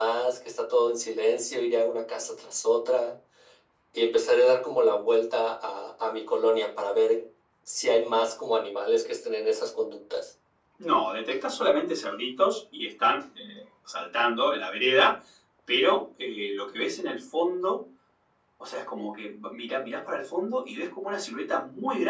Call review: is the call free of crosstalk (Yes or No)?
Yes